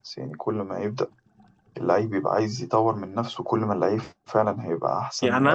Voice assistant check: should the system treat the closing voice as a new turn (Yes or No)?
Yes